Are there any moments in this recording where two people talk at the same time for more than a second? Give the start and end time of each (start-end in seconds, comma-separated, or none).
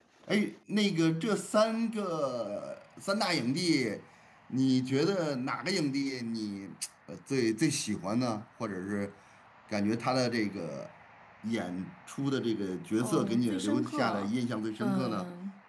13.0-14.3